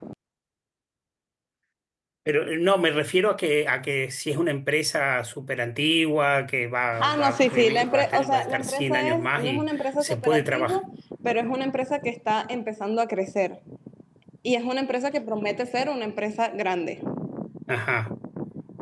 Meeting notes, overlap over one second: present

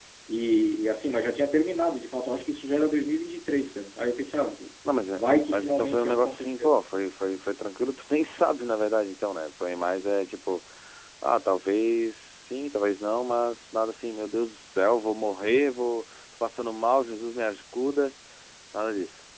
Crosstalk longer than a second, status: present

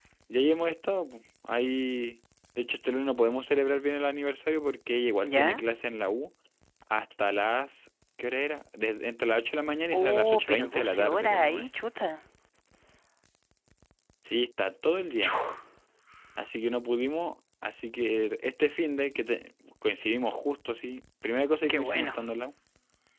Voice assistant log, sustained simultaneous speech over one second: present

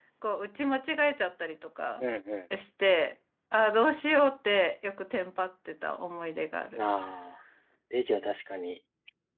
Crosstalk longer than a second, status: none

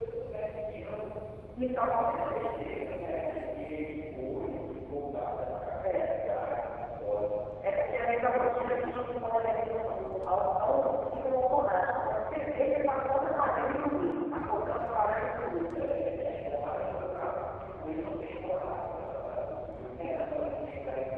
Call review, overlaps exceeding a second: none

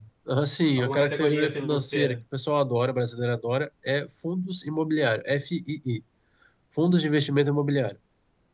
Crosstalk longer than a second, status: present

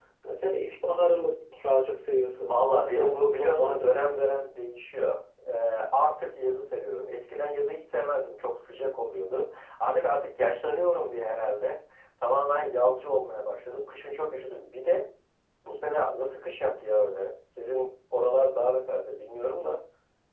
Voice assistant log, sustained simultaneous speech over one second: present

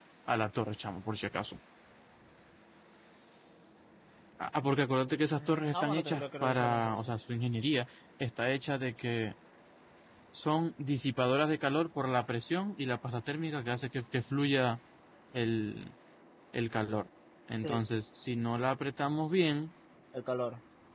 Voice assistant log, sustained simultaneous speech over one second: present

